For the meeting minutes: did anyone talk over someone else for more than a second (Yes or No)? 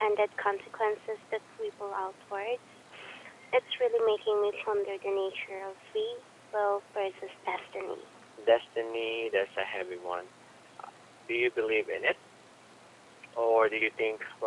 No